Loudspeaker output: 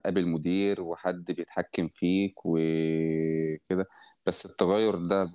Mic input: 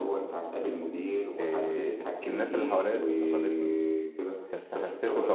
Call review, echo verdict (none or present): present